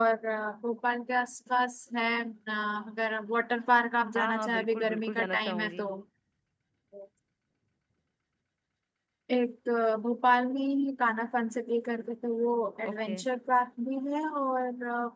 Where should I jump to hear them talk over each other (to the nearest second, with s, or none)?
4 s